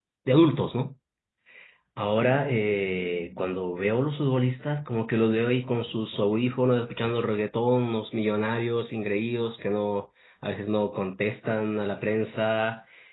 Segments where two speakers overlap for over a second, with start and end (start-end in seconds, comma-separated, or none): none